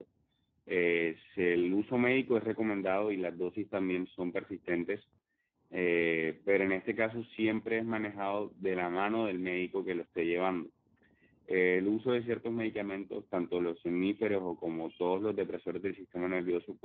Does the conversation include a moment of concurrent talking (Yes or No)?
No